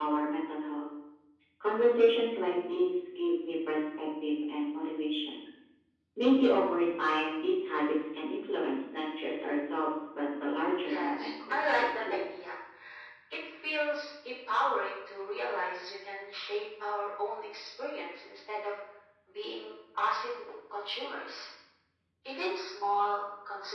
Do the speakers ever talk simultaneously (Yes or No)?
Yes